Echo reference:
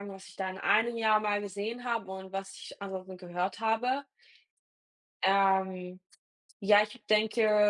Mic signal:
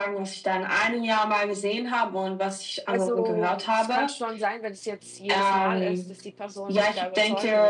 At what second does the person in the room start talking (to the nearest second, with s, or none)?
3 s